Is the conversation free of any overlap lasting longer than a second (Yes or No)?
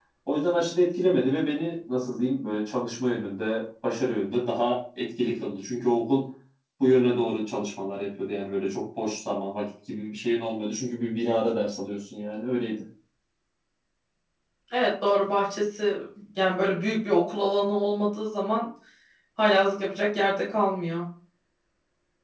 Yes